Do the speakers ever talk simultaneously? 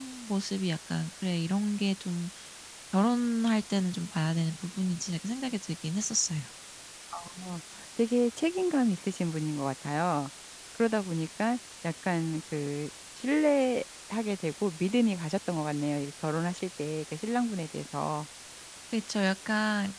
No

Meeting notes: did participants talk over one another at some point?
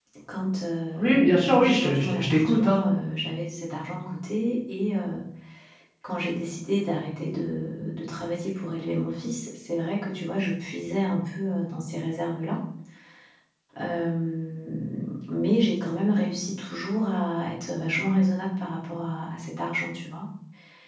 Yes, from 1.0 s

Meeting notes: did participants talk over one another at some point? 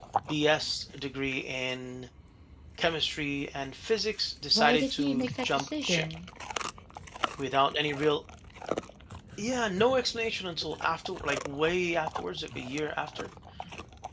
Yes, from 4.5 s

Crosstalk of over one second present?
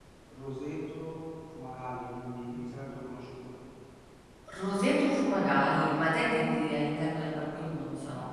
No

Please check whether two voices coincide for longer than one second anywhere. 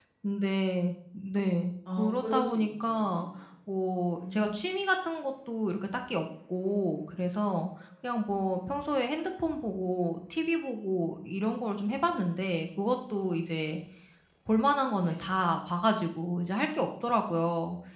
Yes, from 1.9 s

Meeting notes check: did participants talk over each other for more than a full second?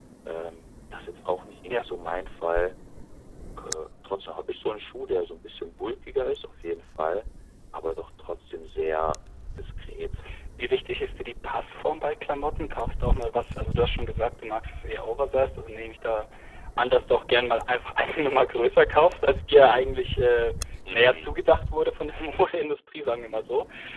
No

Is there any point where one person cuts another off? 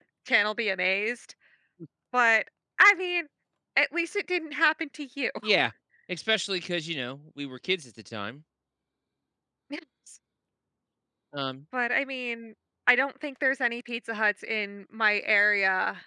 No

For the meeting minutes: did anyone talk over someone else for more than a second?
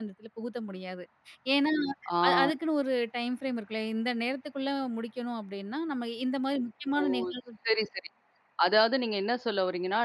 No

